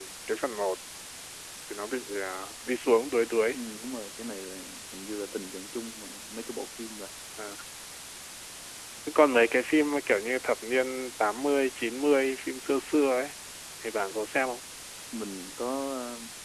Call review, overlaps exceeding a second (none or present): none